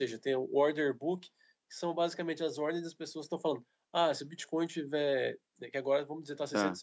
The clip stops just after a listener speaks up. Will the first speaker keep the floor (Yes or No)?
Yes